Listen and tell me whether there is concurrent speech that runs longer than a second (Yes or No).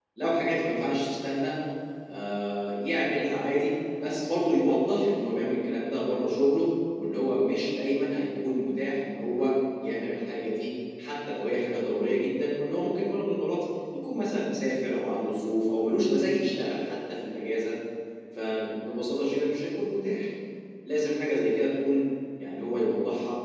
No